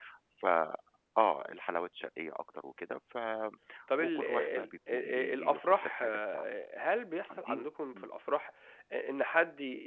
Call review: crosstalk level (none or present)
present